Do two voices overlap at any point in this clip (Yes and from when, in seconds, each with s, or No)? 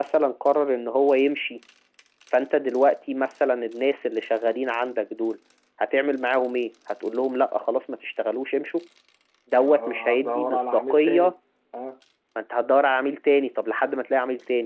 Yes, from 9.6 s